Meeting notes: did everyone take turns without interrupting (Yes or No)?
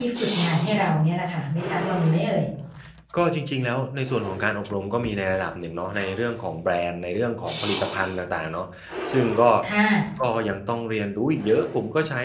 Yes